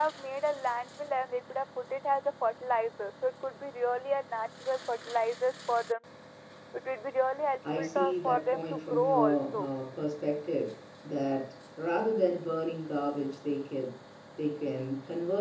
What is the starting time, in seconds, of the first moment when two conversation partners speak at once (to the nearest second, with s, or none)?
8 s